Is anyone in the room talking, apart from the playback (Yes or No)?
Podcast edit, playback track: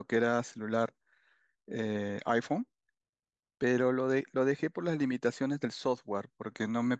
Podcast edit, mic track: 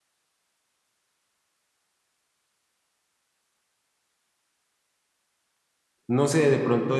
Yes